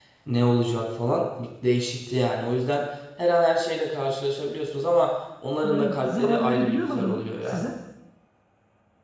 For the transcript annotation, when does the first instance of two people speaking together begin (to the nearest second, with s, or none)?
6 s